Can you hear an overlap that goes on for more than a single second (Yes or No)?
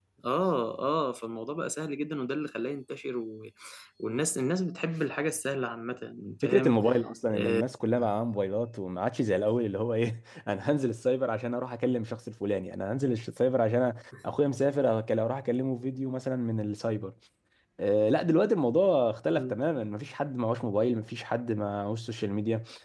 No